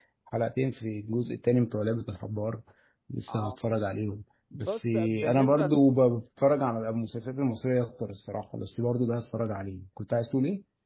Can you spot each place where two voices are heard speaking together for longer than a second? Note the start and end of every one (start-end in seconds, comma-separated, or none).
4.5-5.8